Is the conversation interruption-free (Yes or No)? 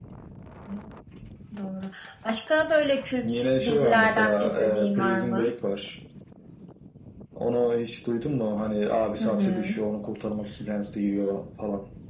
No